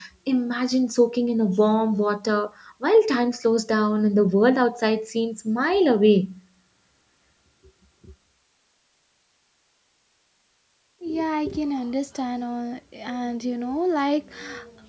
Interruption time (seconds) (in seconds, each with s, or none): none